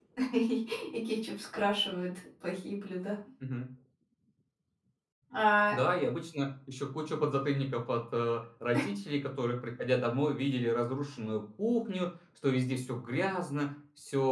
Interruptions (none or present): none